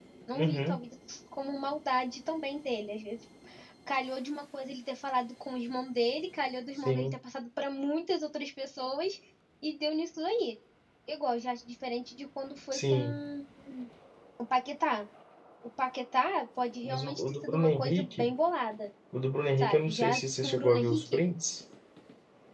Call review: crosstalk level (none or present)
present